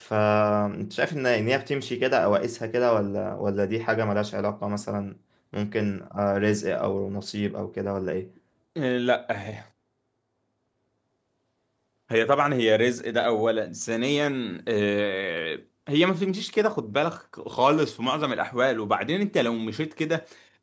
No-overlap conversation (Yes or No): Yes